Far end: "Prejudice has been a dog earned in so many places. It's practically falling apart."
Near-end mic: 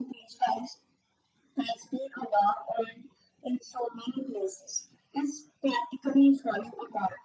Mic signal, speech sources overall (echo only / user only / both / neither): echo only